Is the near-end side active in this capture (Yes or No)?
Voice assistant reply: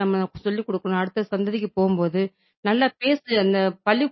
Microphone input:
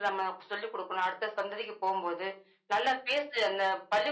No